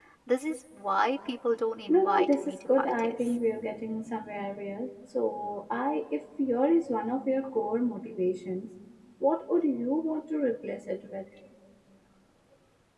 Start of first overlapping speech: 2 s

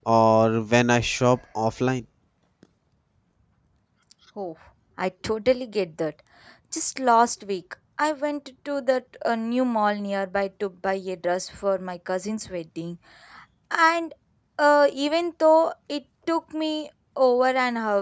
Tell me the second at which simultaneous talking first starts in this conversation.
none

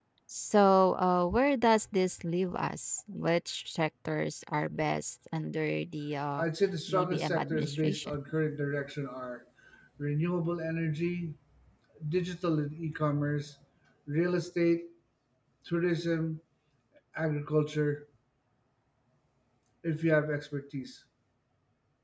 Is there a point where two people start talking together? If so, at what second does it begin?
7 s

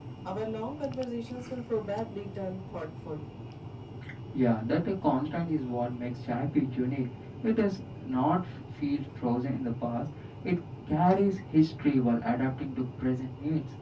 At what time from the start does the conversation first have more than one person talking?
none

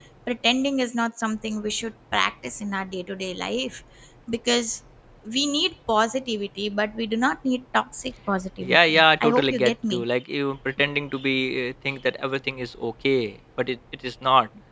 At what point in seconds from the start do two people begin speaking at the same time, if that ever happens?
9 s

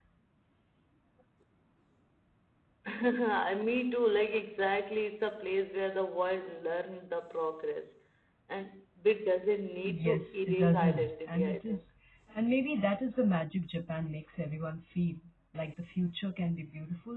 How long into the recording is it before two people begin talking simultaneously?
10 s

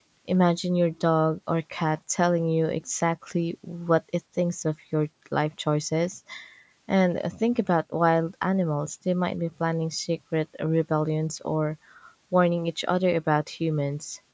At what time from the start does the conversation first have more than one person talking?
none

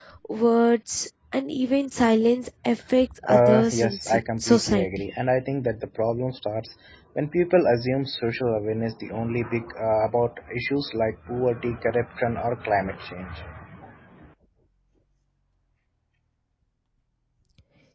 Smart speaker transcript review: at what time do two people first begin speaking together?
3 s

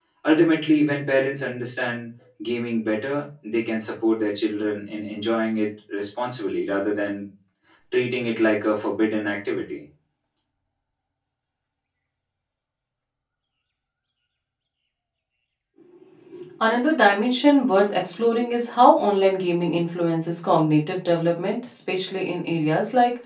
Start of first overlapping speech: none

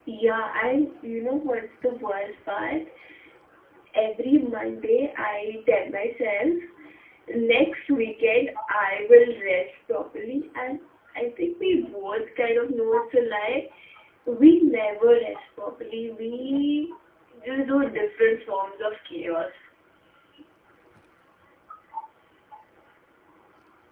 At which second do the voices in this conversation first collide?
none

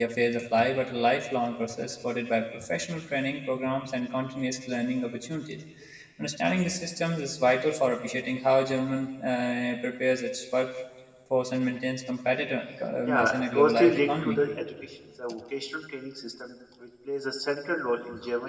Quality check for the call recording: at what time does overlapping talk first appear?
13 s

